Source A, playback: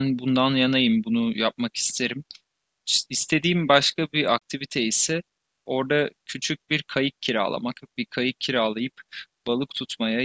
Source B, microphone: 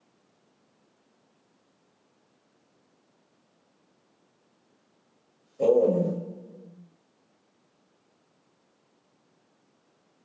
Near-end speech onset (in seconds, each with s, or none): 5.6 s